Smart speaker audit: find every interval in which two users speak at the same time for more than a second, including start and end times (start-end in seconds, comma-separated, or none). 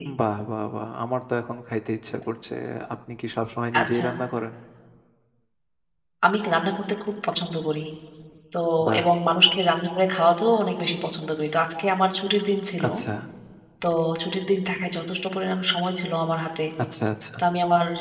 none